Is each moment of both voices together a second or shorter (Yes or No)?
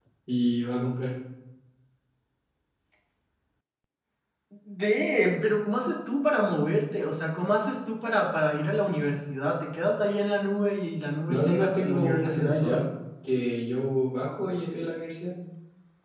No